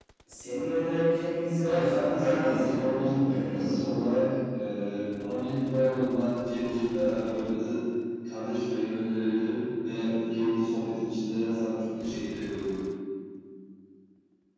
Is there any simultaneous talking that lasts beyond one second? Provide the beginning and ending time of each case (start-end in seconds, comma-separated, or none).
1.6-3.8